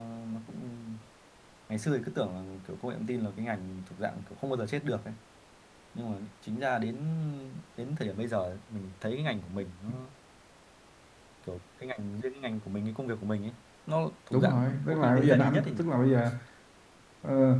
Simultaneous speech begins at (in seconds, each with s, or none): 14.3 s